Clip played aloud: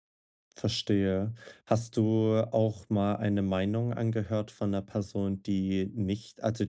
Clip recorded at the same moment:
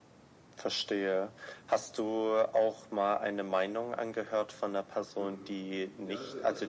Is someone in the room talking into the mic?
Yes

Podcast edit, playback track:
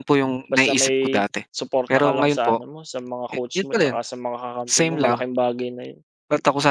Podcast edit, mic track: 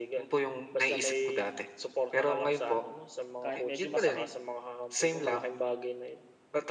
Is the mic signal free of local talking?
No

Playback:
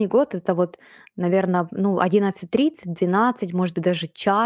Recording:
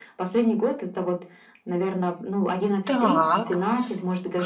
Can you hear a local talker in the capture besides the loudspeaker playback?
Yes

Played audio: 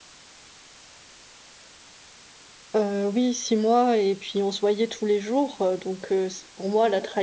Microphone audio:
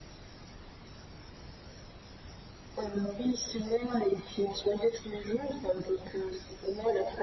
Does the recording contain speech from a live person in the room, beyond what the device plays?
No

